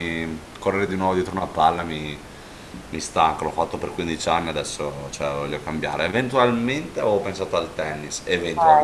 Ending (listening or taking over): taking over